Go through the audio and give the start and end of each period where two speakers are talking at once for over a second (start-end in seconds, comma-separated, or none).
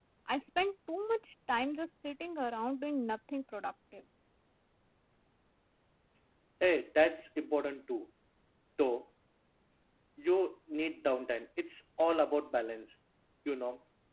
none